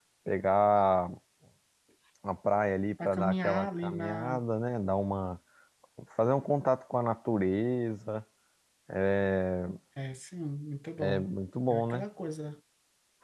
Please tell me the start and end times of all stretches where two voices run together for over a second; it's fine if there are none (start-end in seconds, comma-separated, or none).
3.0-4.4